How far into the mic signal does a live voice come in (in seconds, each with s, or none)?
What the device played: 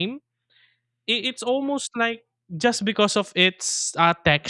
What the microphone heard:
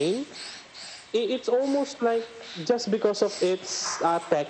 none